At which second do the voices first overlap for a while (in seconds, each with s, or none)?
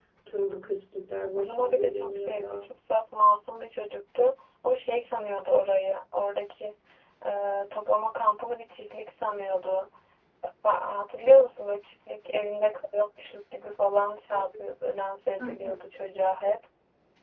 1.4 s